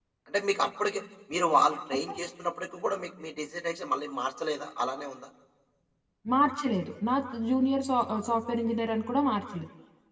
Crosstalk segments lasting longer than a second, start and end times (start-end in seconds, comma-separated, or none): none